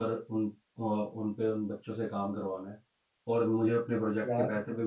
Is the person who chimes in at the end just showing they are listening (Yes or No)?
Yes